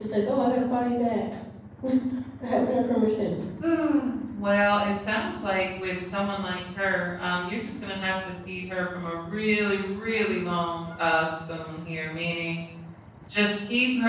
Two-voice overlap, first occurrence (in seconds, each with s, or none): none